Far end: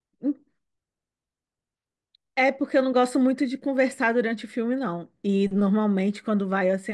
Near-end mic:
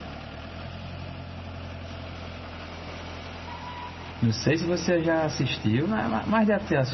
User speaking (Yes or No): Yes